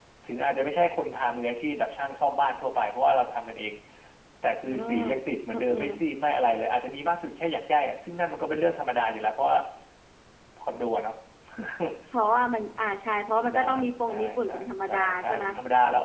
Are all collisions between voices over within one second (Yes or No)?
No